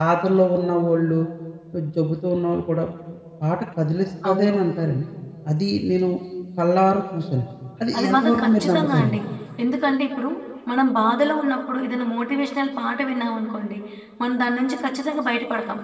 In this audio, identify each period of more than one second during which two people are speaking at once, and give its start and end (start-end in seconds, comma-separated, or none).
8.0-9.2